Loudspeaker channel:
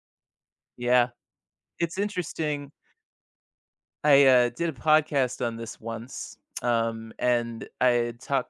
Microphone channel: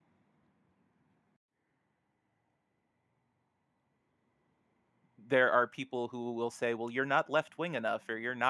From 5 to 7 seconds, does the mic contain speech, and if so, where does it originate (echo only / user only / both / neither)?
user only